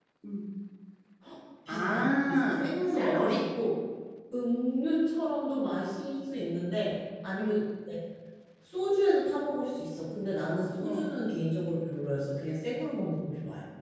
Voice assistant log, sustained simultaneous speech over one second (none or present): present